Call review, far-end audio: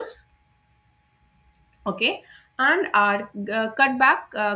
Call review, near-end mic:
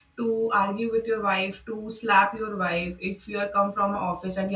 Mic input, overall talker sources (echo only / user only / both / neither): user only